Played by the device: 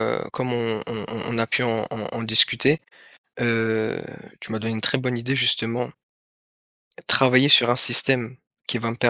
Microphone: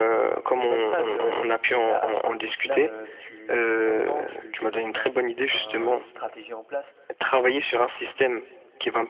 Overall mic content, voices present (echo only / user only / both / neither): both